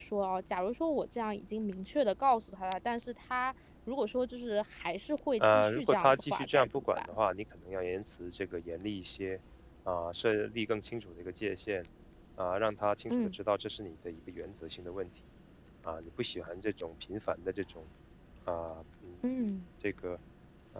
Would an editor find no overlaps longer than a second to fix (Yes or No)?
No